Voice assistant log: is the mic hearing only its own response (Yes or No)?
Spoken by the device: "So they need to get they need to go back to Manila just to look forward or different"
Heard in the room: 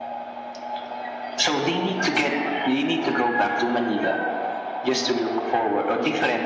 Yes